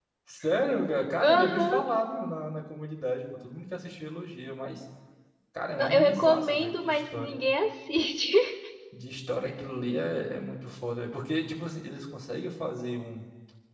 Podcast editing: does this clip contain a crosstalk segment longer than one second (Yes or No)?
Yes